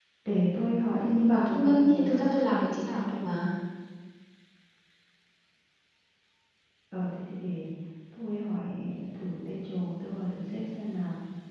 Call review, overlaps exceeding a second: present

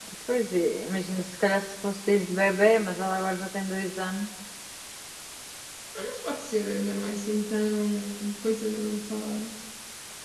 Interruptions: none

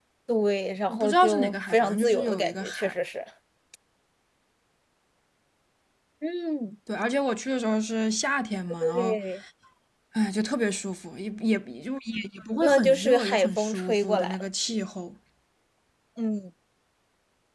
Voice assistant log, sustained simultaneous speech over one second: present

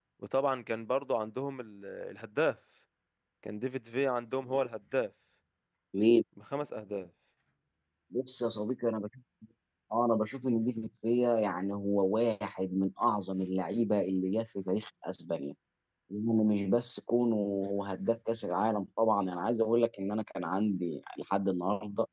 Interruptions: none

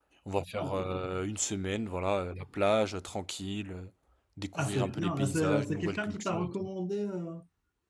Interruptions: present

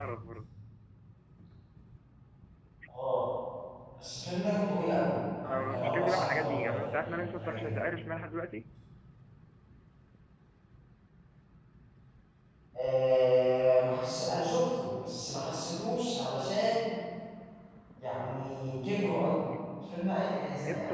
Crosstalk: present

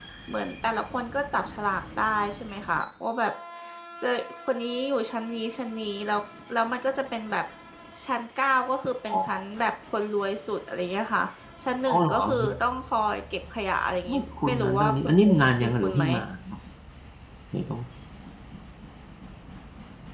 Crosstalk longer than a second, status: present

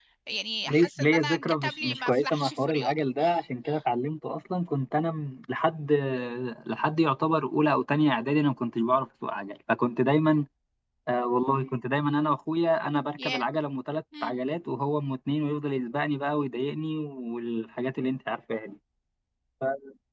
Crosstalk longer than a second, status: present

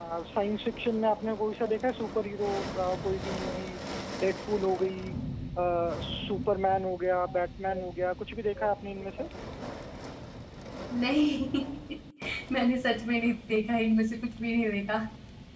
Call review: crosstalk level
none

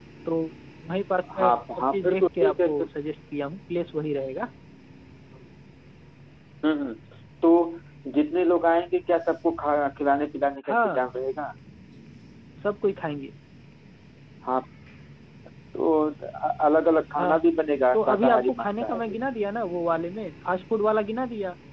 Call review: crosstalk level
present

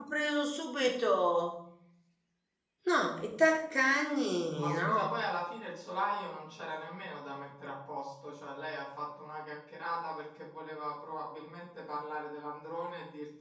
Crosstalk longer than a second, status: none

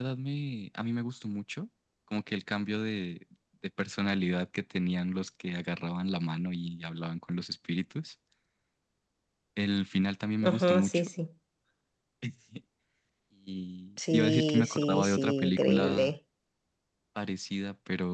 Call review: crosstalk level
present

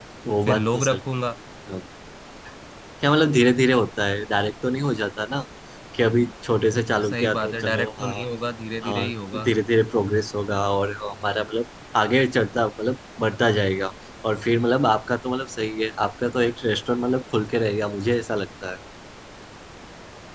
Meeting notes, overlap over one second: present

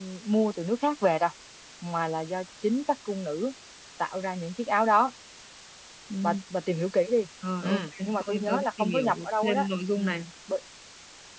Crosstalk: present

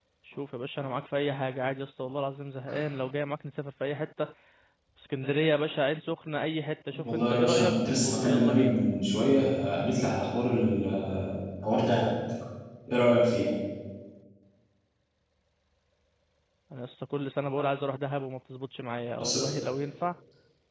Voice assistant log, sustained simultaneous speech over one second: present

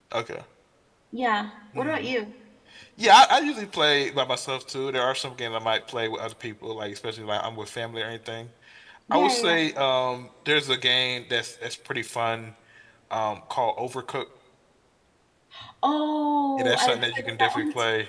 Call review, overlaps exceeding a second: present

